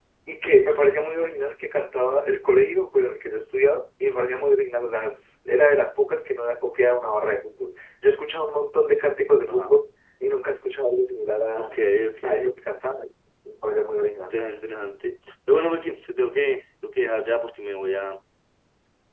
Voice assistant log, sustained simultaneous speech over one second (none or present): none